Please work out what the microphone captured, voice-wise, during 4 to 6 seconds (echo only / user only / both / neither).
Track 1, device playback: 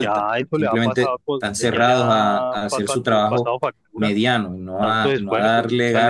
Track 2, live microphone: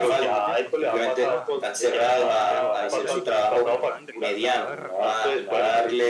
both